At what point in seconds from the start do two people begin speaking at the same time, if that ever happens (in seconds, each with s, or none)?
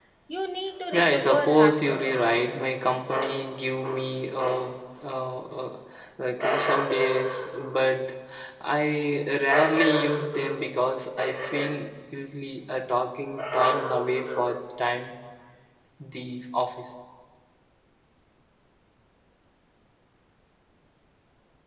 0.9 s